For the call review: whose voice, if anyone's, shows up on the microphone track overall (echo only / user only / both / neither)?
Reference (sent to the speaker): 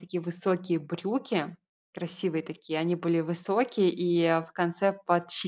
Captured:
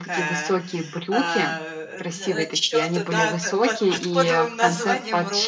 both